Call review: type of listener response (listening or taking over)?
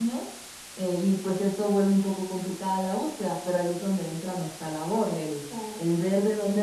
listening